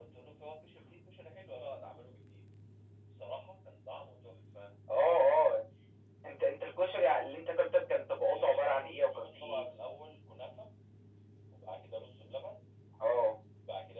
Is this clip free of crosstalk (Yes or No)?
No